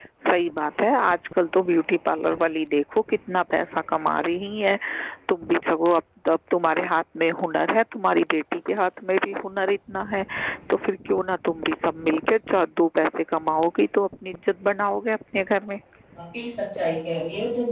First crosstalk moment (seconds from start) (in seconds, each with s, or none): none